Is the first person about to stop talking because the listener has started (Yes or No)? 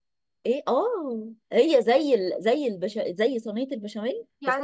Yes